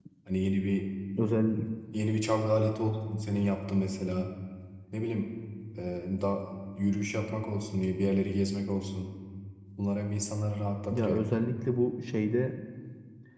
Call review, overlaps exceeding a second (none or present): none